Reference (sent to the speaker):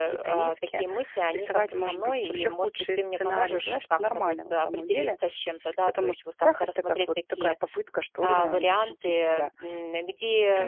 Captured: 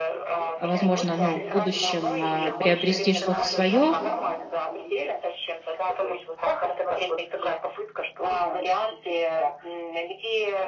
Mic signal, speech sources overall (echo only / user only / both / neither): both